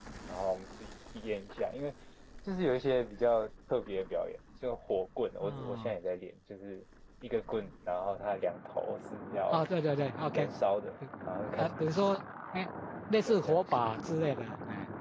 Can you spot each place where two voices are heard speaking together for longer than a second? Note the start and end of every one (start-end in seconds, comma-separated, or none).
none